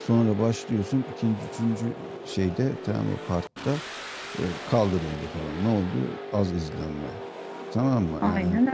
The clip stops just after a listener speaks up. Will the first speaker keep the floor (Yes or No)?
Yes